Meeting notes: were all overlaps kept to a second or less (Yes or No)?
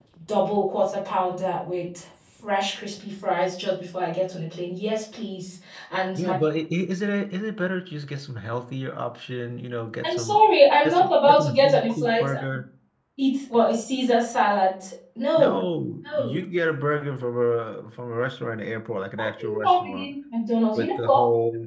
No